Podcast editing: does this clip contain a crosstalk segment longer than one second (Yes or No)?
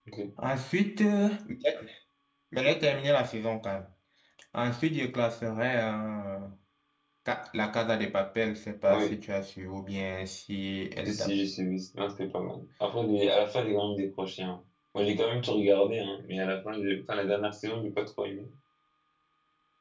No